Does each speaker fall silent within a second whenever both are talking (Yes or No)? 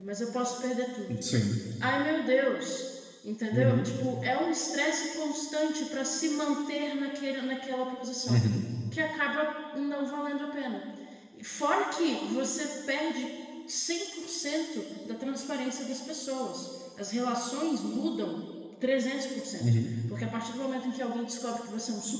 Yes